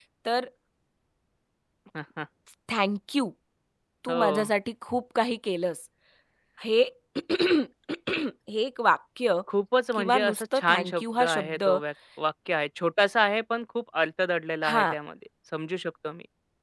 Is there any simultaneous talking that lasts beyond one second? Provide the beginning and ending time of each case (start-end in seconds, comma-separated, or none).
9.9-11.6